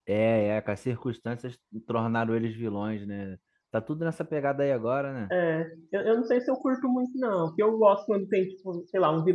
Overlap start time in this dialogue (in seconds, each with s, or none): none